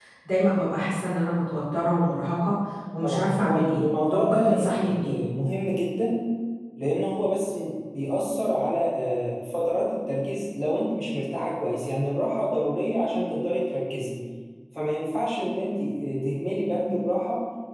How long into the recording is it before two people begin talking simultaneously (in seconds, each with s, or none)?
3.0 s